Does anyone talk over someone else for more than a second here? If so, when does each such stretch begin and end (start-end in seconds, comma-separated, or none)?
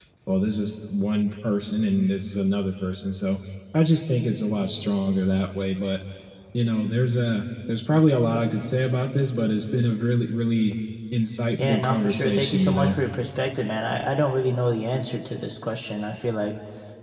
11.5-13.0